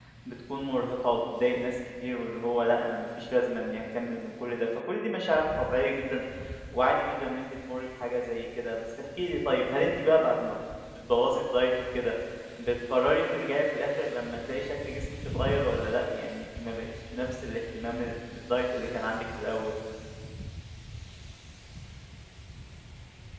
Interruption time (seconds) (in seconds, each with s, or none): none